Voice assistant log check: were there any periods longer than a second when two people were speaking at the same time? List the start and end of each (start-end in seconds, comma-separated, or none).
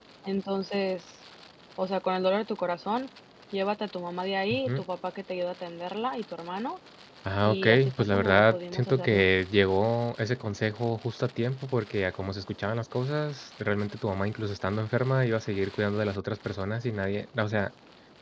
7.5-9.2